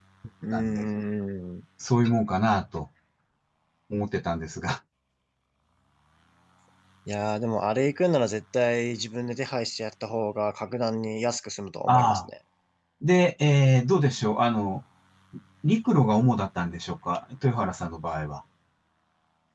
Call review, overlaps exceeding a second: none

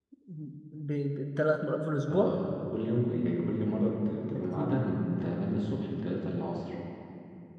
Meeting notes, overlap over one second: none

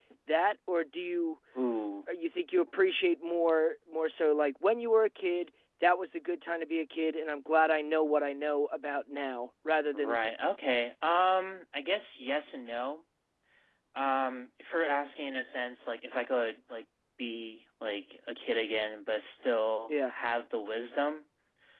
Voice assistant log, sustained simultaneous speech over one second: none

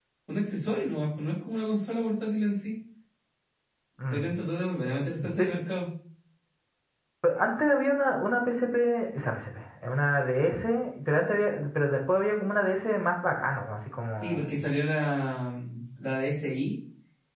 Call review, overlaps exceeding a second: none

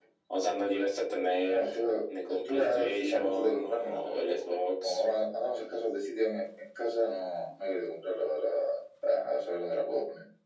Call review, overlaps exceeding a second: present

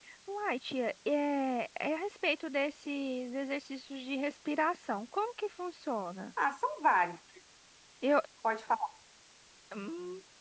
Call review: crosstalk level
none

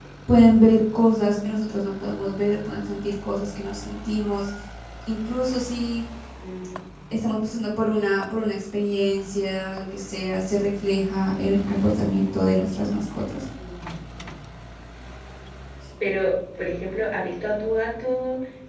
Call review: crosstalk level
none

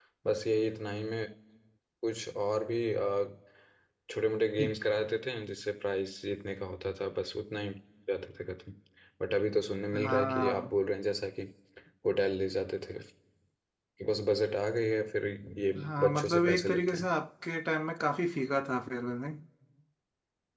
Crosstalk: present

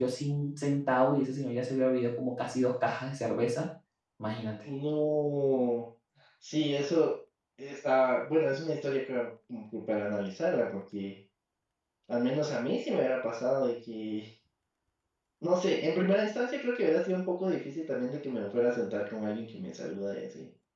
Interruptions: none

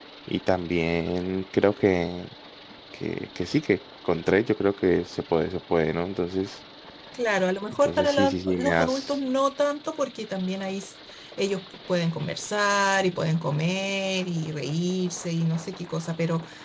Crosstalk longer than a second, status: present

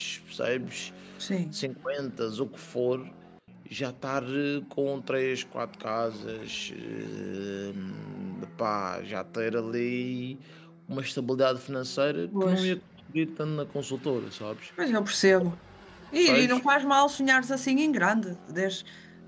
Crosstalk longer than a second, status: none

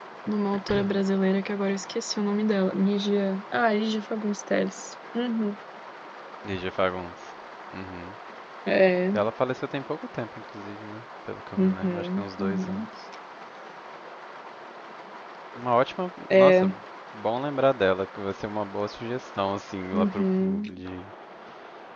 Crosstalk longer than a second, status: present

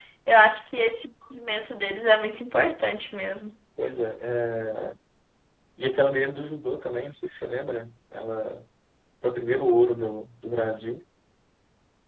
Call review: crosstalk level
none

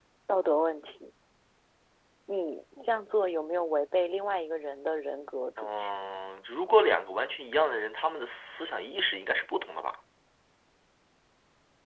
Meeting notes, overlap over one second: none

